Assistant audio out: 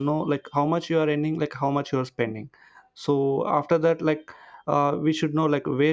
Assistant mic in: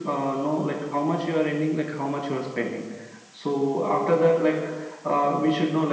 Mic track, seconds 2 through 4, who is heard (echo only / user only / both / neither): echo only